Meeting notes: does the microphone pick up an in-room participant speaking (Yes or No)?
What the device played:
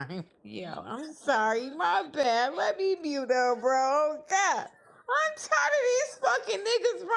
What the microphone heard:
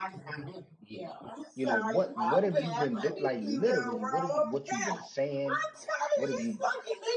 Yes